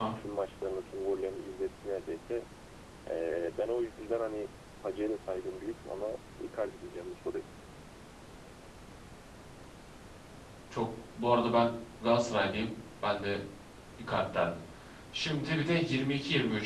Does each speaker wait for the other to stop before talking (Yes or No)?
Yes